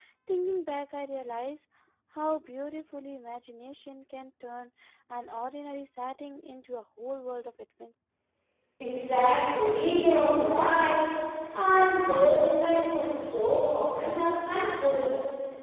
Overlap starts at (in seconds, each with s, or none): none